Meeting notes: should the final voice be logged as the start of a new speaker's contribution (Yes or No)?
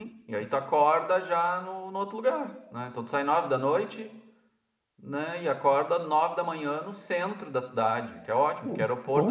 No